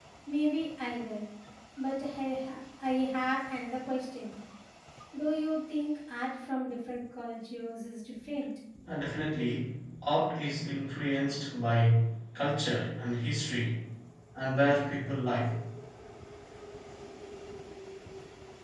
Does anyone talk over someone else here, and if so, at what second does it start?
none

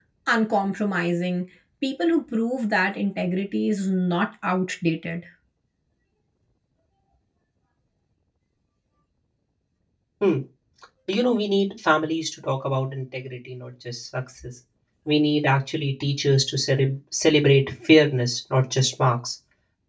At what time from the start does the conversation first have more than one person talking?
none

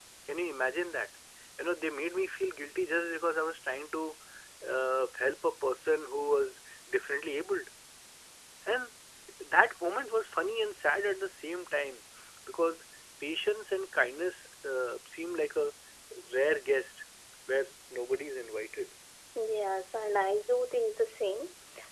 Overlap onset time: none

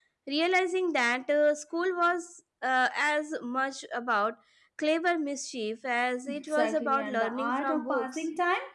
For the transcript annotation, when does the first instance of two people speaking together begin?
6 s

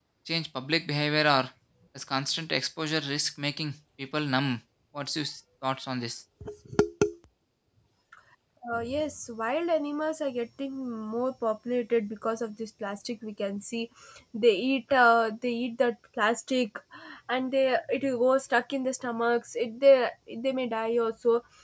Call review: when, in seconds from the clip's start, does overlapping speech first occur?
none

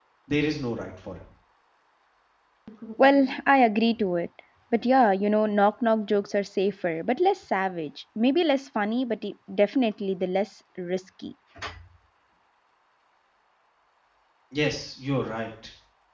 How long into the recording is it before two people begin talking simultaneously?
none

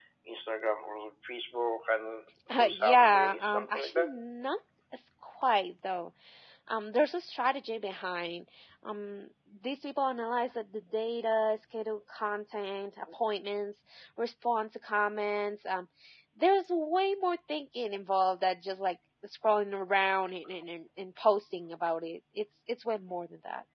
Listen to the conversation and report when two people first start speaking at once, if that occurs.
2 s

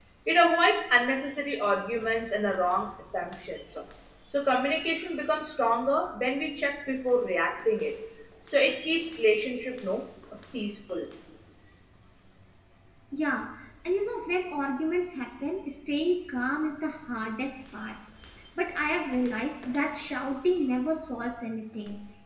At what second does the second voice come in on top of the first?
none

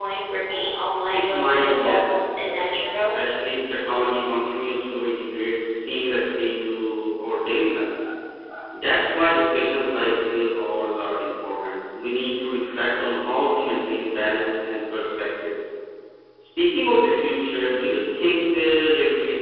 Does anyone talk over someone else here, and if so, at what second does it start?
1 s

